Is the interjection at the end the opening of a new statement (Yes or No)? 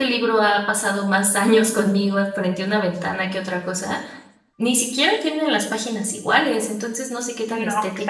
No